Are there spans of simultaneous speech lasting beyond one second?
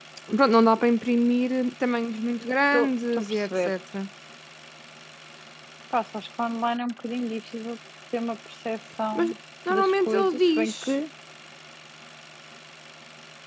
Yes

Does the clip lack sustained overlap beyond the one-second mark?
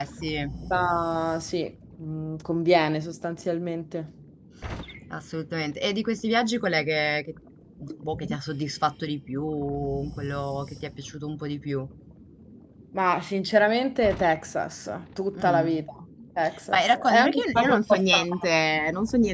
No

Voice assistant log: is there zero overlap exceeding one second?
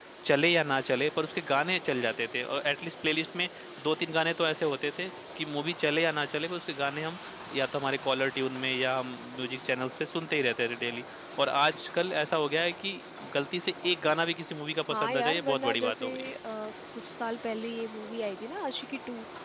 No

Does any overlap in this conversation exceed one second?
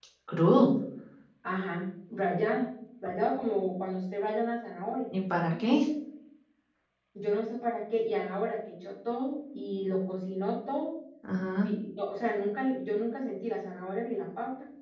No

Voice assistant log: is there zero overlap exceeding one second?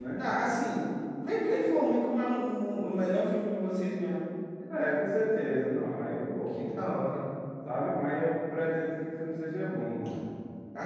Yes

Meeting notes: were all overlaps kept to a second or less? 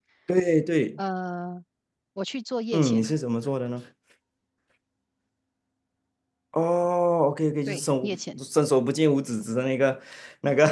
Yes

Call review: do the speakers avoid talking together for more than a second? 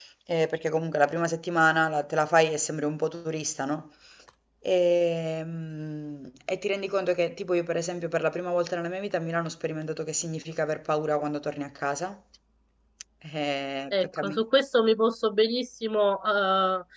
Yes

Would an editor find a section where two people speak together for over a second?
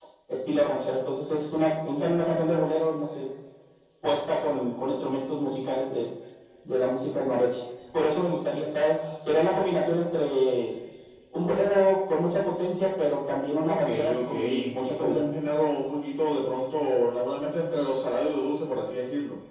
Yes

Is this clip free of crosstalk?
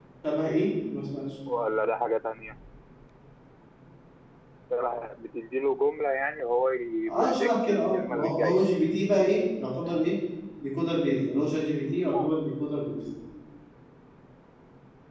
No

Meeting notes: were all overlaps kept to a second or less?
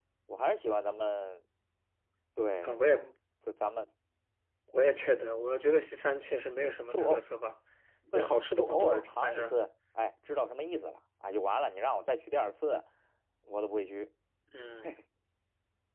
No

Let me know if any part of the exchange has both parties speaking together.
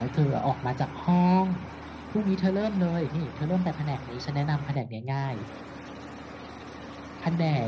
No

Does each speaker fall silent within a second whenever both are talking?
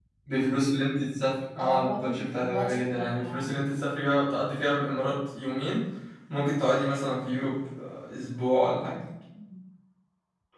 No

